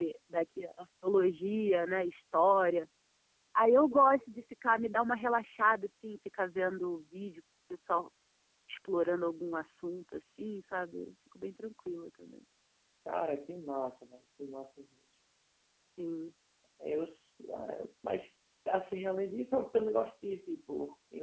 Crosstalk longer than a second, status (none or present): none